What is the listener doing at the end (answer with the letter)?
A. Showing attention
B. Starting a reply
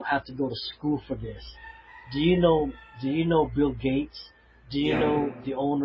A